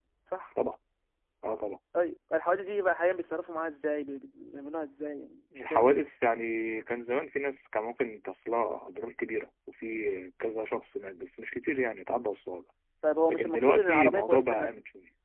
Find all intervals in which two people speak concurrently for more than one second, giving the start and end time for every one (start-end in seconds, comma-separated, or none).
13.3-14.7